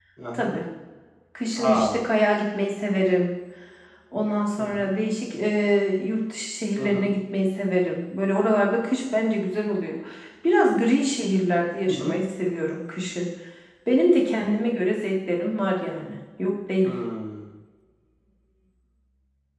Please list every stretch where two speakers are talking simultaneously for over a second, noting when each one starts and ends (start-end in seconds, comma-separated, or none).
none